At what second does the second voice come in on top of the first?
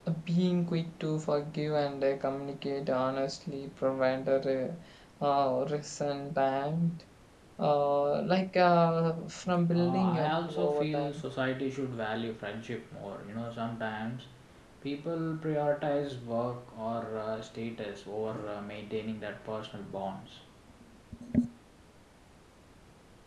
9.8 s

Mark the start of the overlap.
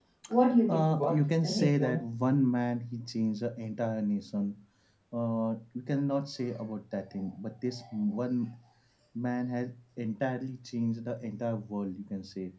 0.7 s

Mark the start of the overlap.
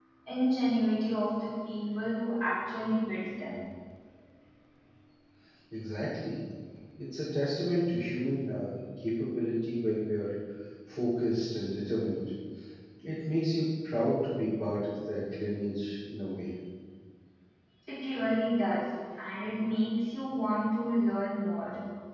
none

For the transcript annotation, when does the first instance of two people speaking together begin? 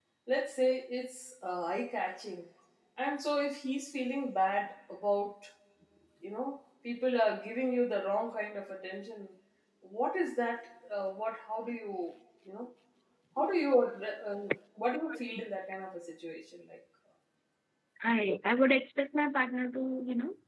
none

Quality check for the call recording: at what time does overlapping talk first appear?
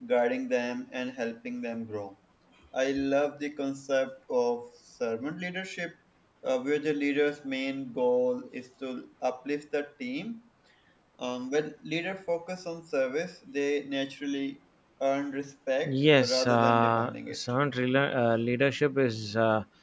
15.8 s

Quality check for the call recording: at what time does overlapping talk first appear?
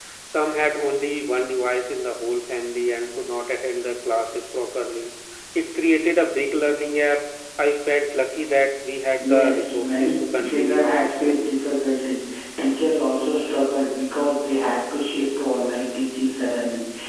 9.2 s

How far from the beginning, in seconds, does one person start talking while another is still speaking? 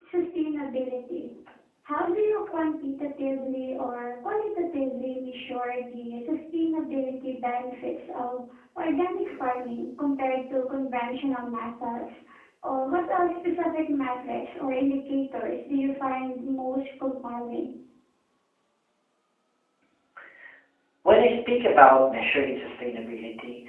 none

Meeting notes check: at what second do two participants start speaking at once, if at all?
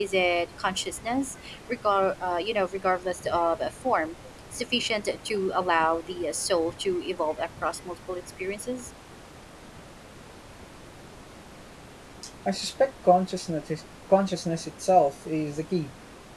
none

